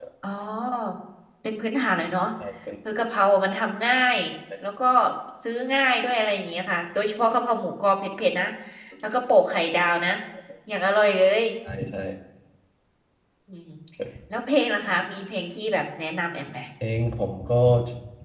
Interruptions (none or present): none